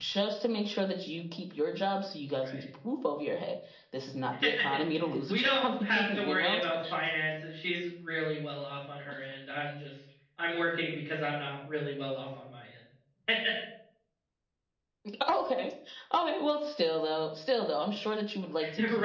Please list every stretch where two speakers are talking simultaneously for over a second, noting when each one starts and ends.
5.3-6.6

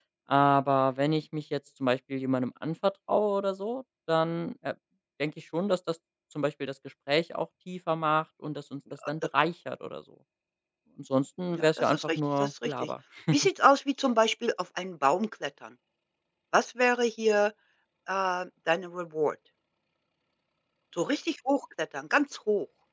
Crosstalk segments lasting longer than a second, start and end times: 11.5-12.9

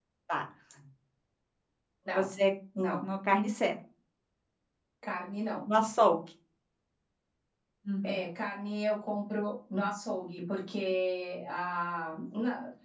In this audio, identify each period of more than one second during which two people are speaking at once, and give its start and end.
none

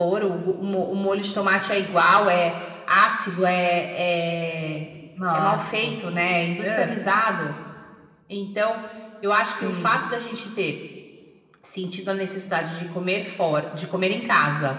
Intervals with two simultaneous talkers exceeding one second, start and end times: none

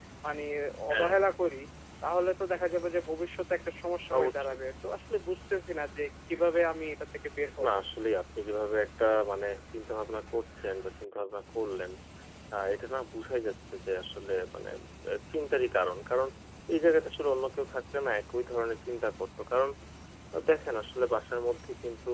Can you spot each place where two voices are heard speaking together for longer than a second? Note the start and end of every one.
none

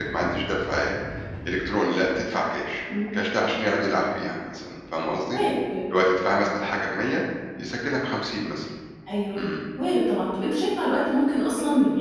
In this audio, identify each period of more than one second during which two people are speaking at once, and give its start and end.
none

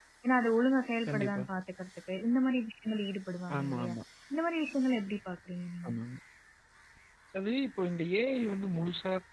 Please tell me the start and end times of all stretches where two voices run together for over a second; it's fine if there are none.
none

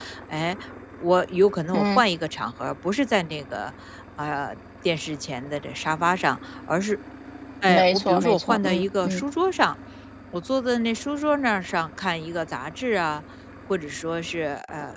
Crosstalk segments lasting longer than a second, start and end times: 7.7-9.2

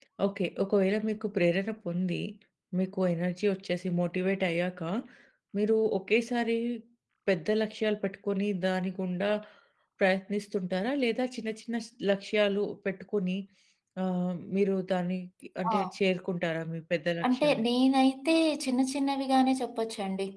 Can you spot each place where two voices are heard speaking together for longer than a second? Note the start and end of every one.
none

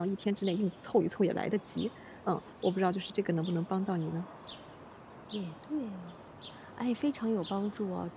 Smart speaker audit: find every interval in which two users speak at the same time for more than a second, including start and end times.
none

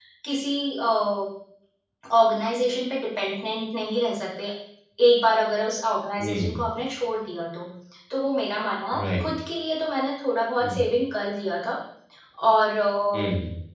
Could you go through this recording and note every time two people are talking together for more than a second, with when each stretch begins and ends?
none

